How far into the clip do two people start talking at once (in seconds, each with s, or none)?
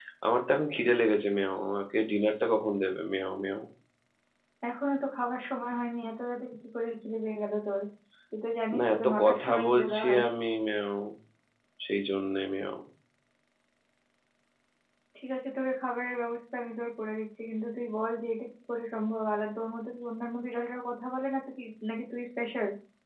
8.8 s